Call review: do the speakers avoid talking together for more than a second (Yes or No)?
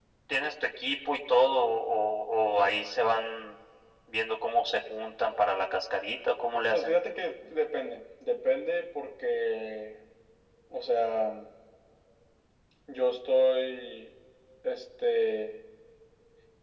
Yes